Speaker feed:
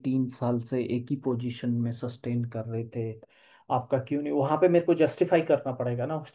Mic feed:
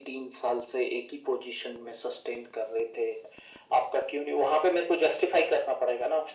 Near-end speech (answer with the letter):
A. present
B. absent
B